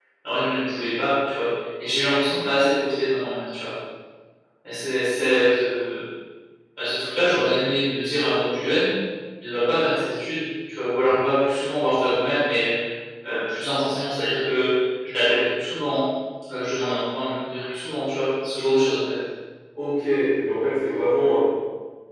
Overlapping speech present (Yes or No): No